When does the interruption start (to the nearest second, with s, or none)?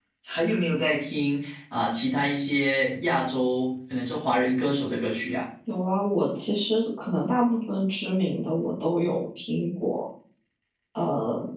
none